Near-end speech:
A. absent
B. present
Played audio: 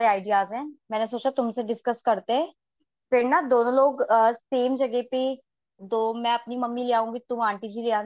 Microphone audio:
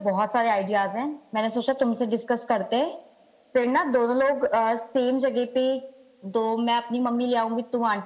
A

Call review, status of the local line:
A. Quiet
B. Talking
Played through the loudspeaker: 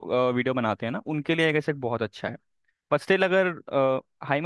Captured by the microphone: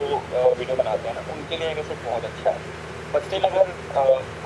A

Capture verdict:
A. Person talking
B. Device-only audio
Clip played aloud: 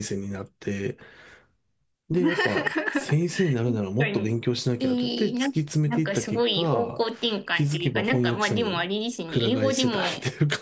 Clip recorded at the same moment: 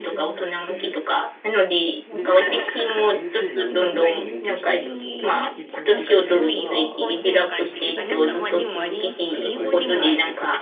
A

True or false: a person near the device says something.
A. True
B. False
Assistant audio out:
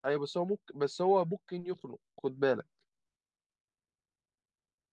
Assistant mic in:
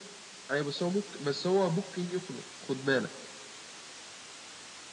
B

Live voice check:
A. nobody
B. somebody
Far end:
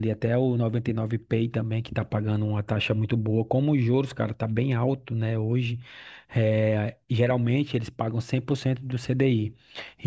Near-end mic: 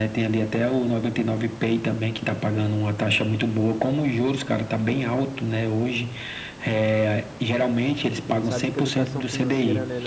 B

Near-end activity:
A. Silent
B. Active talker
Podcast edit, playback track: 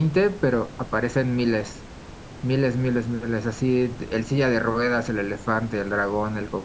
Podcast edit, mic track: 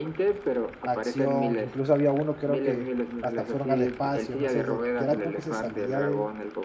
B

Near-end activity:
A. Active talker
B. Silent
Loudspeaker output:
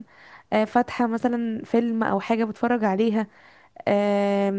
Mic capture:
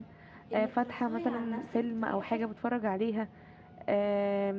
A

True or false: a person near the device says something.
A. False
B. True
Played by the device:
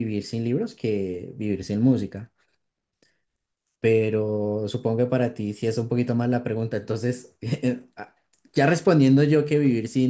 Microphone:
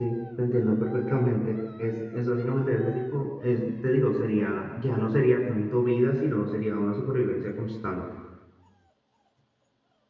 B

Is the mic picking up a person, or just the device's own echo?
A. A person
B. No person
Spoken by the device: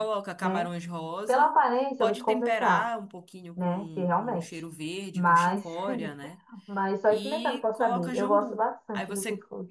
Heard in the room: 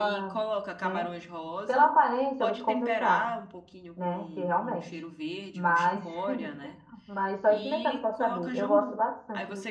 B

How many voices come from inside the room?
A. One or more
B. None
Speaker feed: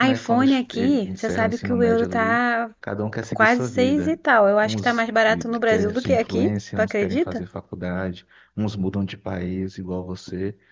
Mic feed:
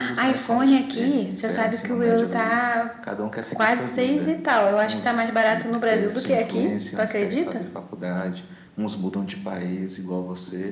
B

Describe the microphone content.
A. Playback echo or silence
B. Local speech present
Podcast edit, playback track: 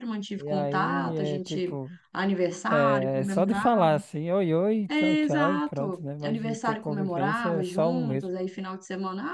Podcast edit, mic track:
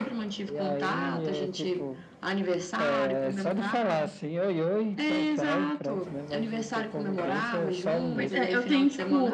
B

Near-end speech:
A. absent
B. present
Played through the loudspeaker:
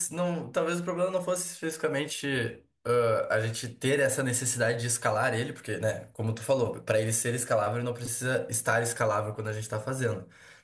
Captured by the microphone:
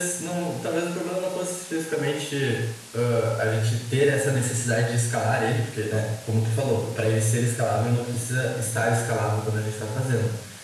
A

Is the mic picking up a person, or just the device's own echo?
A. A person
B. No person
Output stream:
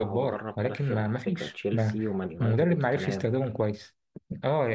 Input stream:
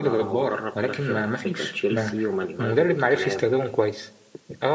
B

